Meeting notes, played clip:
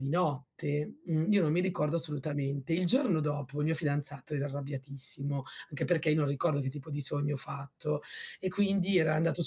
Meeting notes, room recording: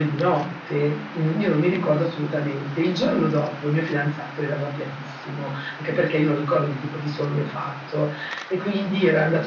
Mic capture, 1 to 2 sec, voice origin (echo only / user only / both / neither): echo only